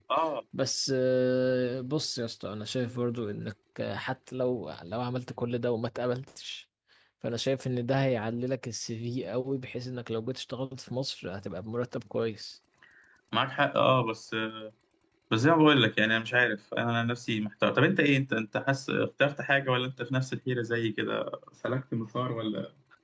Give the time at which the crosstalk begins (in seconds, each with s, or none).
none